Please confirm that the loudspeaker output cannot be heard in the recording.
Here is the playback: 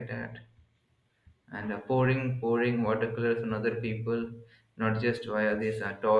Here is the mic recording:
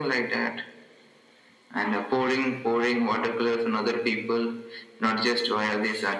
No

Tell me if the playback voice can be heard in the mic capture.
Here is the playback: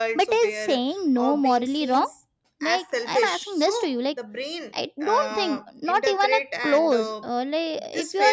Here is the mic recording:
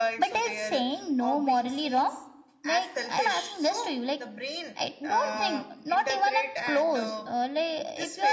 Yes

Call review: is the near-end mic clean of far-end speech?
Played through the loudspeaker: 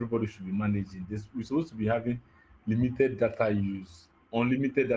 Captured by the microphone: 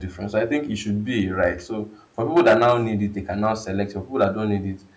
Yes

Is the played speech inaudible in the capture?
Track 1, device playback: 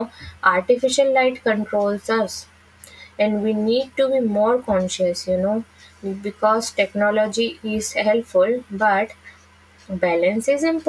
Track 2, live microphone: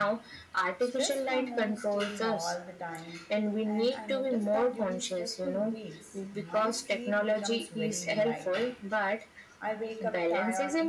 No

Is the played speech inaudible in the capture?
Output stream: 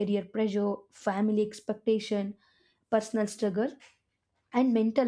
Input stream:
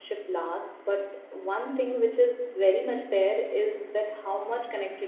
Yes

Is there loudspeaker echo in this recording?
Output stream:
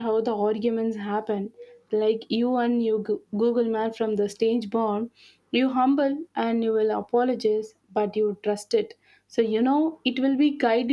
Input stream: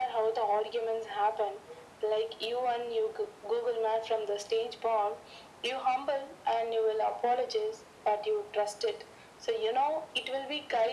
Yes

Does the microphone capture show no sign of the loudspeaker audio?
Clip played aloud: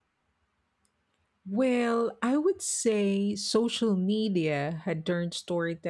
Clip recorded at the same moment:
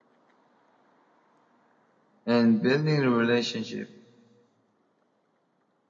Yes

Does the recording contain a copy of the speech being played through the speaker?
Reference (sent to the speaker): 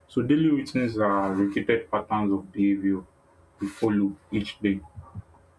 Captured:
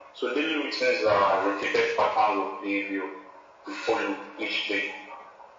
Yes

